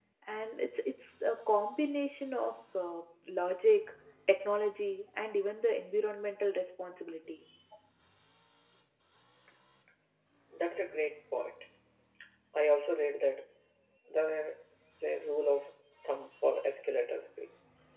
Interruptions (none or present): none